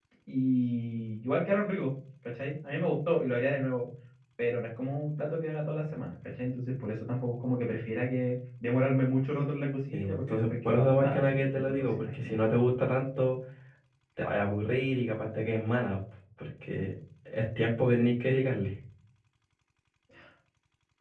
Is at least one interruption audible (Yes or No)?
Yes